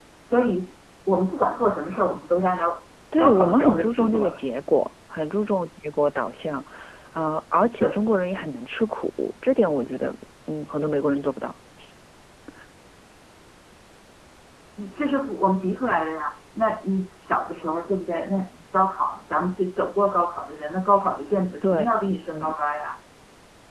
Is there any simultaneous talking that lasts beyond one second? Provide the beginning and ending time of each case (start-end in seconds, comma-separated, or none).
3.2-4.4